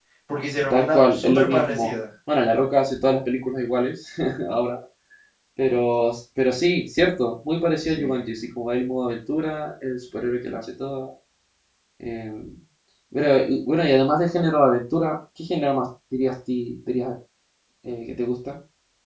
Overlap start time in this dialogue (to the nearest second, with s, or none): 1 s